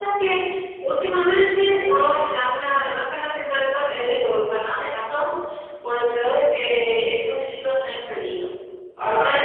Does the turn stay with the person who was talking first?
Yes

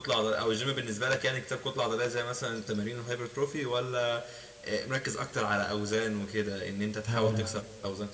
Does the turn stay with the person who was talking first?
Yes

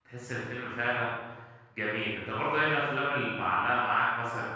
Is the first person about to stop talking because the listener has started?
No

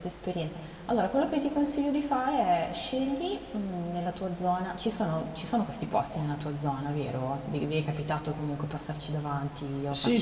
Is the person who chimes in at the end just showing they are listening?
No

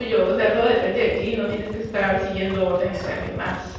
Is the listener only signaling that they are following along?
No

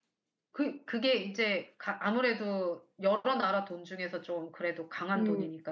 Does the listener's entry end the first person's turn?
Yes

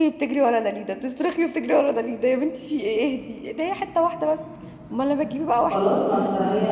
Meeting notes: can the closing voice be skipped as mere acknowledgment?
No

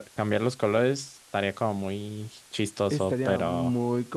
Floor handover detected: Yes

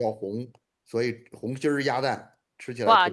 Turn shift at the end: Yes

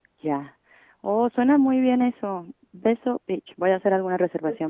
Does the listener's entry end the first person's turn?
Yes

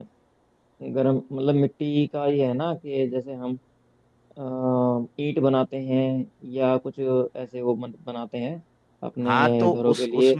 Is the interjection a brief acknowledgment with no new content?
No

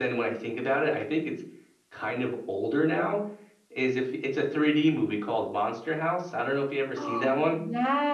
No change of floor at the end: No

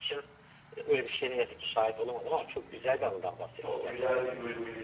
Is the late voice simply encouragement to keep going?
No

